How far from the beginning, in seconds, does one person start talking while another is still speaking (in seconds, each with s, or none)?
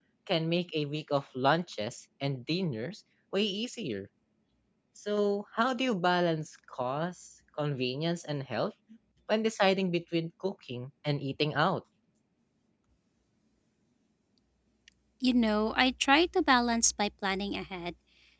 none